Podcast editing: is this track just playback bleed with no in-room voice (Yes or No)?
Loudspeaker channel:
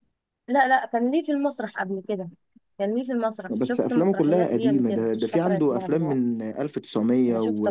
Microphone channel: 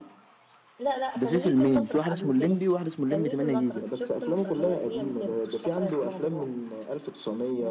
No